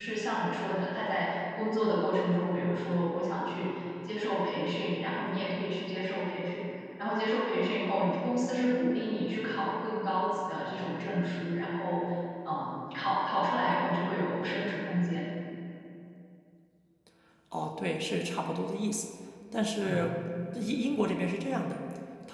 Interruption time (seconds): none

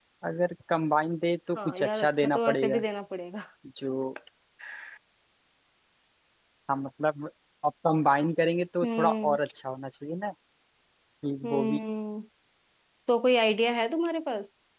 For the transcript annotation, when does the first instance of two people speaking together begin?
1.5 s

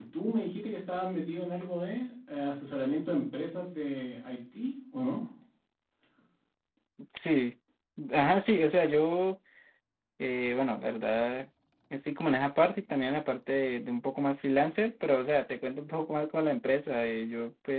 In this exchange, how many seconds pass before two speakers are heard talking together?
none

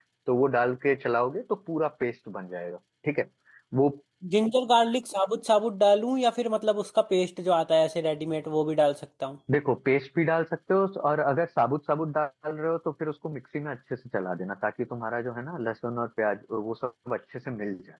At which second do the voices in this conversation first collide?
none

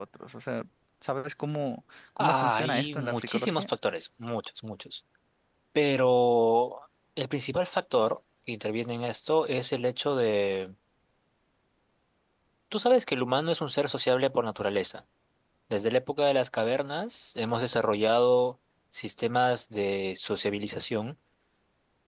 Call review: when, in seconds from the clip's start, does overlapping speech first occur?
2.2 s

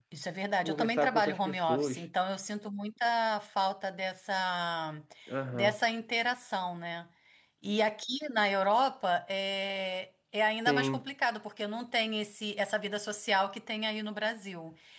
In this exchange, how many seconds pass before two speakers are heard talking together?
0.6 s

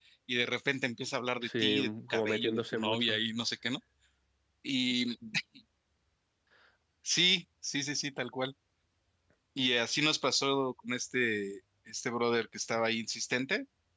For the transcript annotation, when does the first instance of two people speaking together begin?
1.4 s

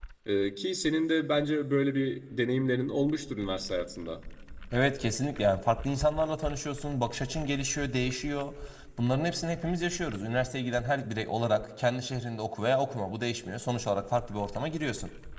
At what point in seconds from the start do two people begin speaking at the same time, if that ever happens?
none

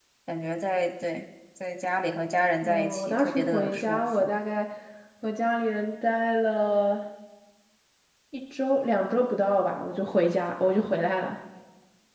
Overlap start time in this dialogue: 2.6 s

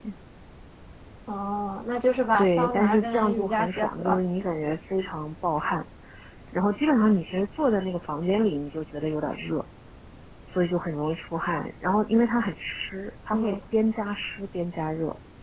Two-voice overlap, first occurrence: 2.4 s

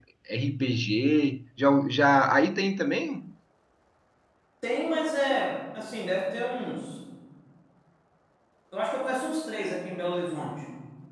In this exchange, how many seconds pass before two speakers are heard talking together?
none

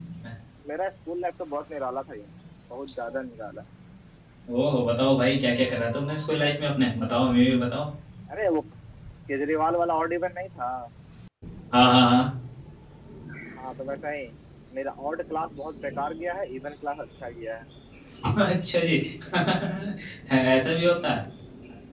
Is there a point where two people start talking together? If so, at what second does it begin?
none

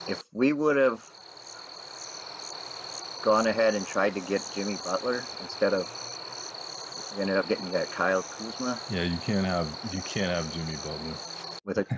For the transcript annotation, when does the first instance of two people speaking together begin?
none

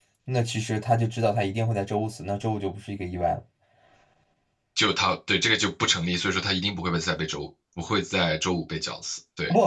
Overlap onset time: none

